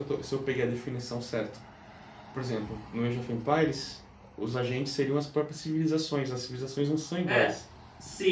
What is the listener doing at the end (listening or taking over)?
taking over